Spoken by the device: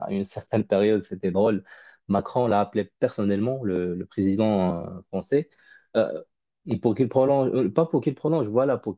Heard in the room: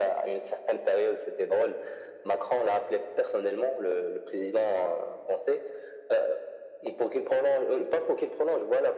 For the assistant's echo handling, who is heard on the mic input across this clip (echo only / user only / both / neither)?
echo only